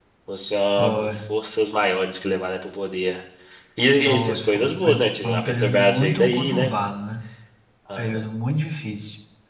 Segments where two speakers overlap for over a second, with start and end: 4.0-6.7

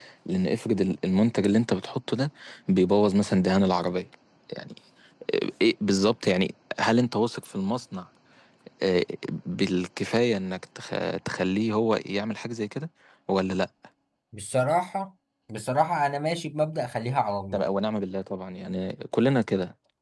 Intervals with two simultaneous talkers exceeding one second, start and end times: none

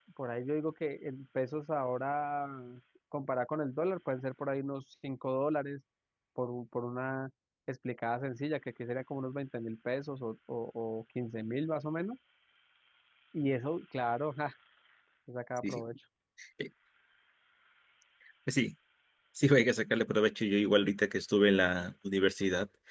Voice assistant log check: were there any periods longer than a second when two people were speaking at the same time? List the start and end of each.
none

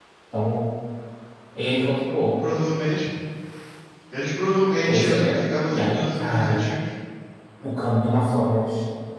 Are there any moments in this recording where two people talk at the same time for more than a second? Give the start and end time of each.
4.9-6.6

